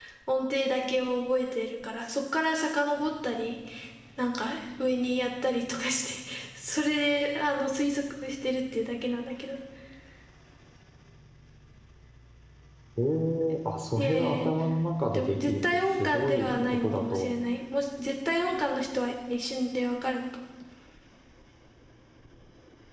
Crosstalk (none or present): present